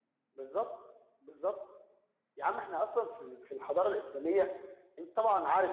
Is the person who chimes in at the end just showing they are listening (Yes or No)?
Yes